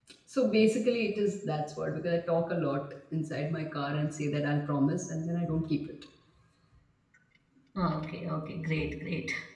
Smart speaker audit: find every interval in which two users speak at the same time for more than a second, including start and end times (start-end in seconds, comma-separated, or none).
none